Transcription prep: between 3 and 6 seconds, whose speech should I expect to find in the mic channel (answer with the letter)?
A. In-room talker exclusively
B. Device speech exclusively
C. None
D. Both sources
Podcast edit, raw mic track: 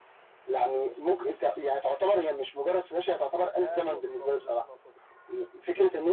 D